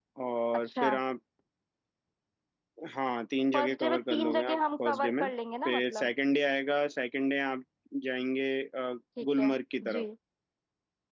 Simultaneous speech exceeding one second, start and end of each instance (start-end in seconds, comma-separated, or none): 3.5-5.3